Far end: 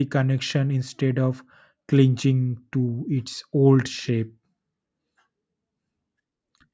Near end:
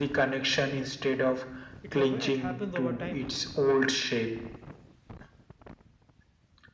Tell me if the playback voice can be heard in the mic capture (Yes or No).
Yes